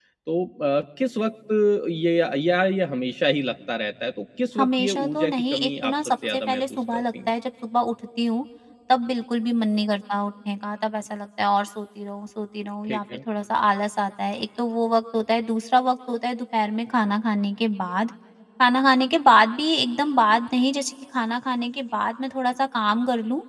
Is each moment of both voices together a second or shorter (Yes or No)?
No